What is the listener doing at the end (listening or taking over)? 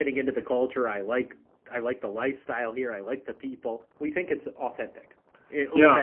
taking over